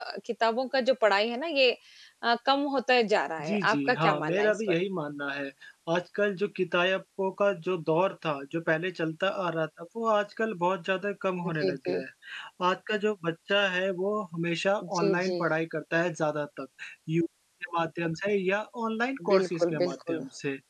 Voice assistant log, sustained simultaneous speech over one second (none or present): present